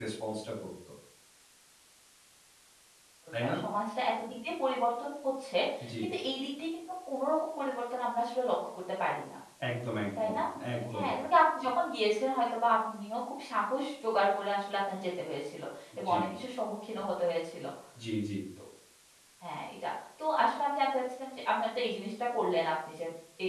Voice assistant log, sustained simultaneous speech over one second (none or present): none